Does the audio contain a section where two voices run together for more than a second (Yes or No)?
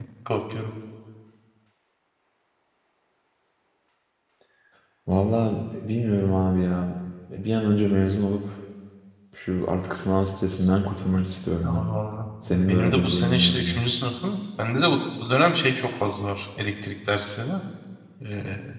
Yes